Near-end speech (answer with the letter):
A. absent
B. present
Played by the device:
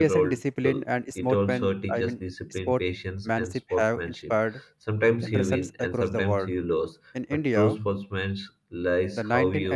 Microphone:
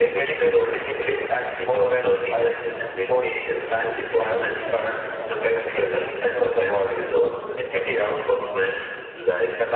A